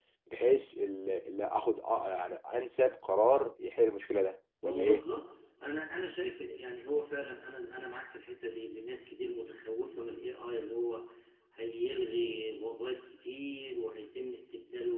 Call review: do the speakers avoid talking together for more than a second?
Yes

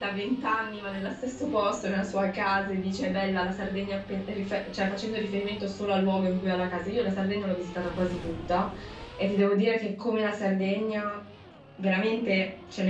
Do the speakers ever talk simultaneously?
No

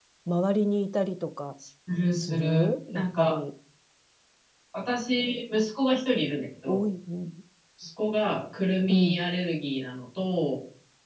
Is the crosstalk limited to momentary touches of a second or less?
No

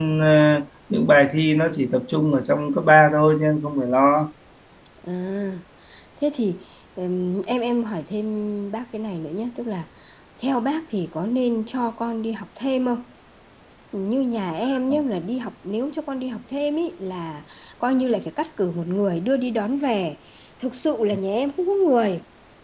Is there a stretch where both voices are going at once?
No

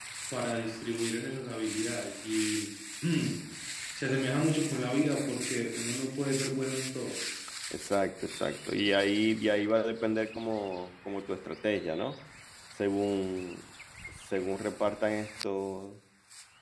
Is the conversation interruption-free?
Yes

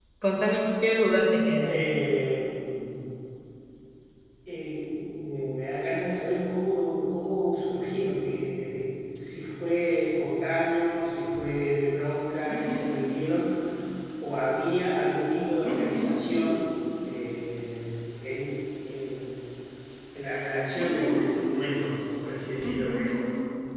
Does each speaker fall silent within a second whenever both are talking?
Yes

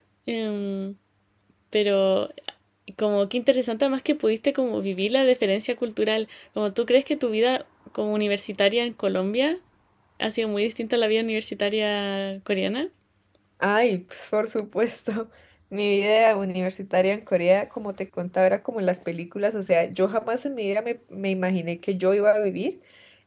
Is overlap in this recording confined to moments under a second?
Yes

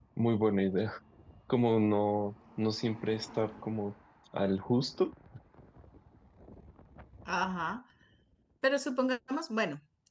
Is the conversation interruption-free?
Yes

